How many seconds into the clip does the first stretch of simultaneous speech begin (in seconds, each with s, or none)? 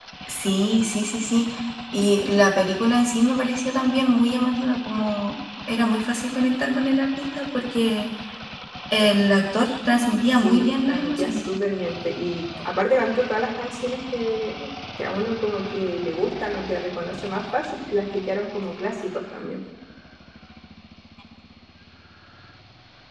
10.2 s